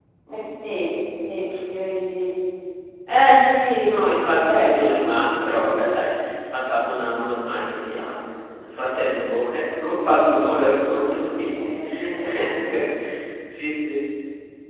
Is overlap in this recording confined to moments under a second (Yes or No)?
No